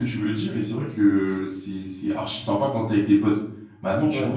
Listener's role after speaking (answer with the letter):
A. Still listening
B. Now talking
A